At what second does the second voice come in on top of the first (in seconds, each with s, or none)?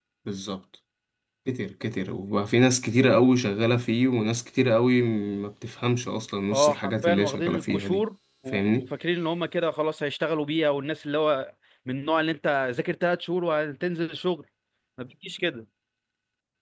6.5 s